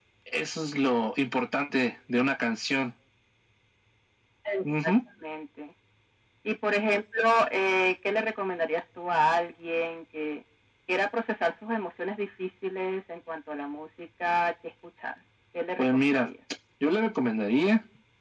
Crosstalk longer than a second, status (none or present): none